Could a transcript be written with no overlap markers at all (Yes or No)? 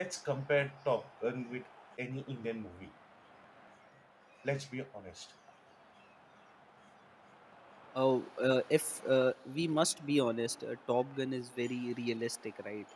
Yes